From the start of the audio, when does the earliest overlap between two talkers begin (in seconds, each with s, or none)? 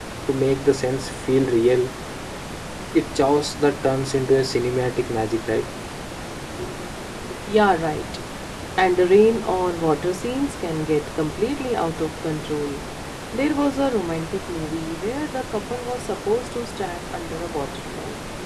none